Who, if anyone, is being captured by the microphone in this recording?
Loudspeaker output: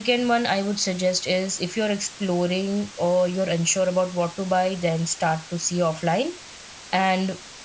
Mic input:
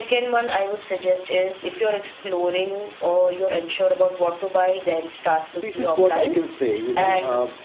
both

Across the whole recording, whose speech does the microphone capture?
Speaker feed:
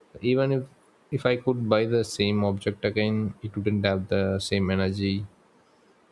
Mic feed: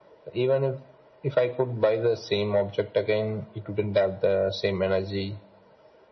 echo only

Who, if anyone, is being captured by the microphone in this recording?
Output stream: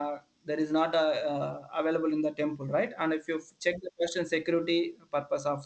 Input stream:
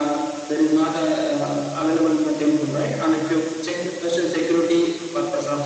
echo only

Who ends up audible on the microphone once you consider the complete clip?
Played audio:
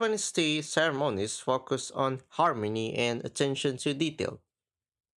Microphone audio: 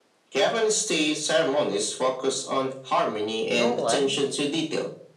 both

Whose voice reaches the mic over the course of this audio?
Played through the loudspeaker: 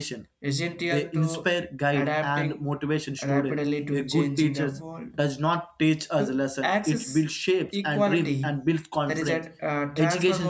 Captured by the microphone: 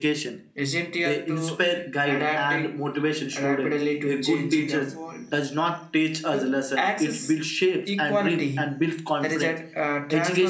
echo only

